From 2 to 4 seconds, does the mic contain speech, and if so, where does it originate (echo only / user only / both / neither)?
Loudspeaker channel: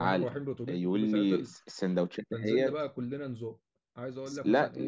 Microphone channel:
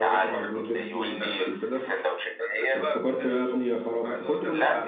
both